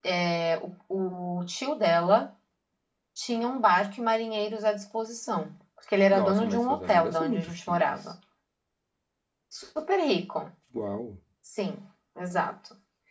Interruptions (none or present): present